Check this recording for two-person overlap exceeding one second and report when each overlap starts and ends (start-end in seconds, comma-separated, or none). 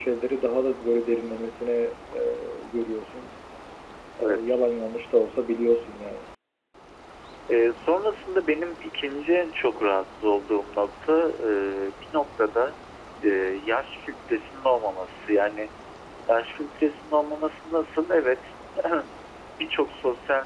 none